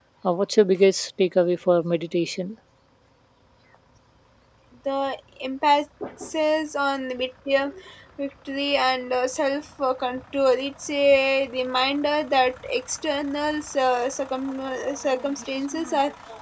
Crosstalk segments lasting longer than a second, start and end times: none

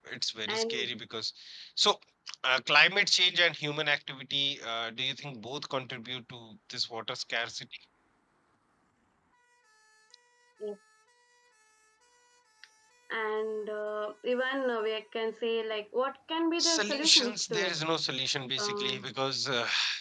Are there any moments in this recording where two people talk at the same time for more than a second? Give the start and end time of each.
16.6-17.8

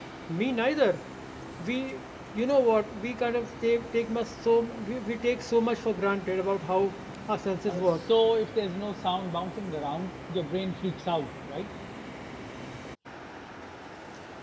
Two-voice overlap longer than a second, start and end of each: none

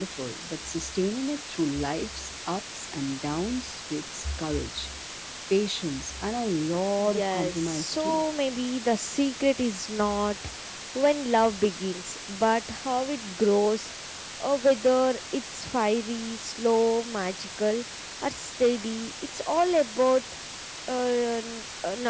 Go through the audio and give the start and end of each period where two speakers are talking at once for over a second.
7.0-8.2

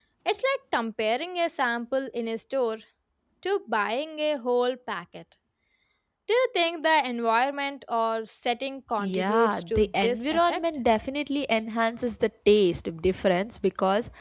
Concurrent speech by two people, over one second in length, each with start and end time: 9.0-10.6

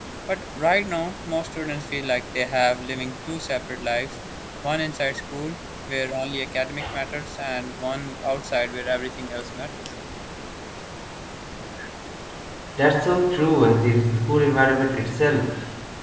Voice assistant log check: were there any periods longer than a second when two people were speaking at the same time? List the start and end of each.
none

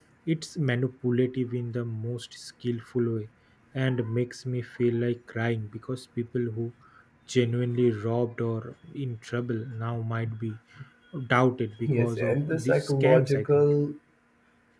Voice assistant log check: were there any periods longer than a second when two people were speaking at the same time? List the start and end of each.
11.9-13.7

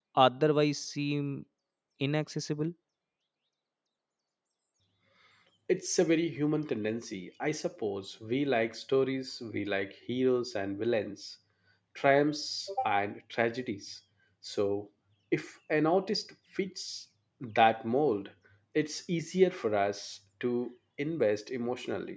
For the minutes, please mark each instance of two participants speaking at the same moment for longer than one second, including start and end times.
none

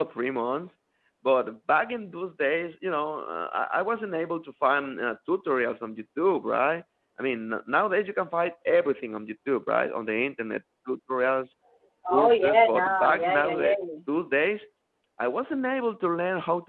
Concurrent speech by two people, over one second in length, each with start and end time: 12.1-13.8

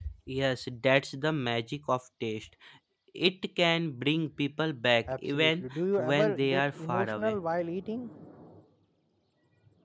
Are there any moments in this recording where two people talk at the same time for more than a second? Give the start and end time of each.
5.1-7.4

